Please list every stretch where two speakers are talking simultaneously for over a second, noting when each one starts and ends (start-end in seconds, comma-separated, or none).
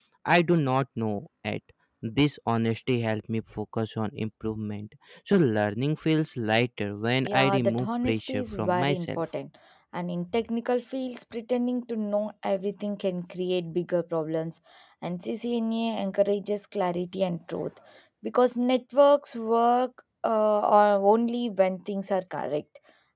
7.2-9.2